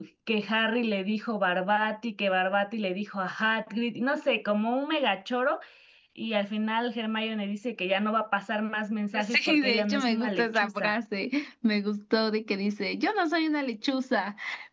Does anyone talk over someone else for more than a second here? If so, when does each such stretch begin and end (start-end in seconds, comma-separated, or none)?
9.2-11.0